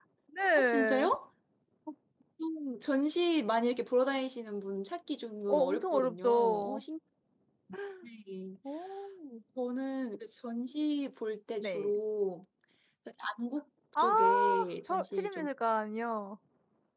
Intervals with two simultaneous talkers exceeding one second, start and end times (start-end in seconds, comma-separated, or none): 5.5-6.8, 14.0-15.5